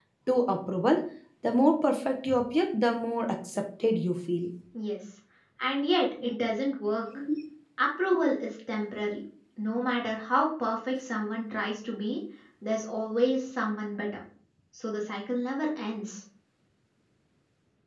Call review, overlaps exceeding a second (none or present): none